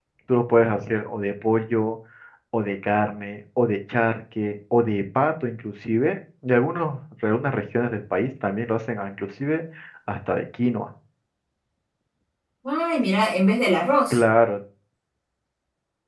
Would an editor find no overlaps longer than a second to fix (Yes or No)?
Yes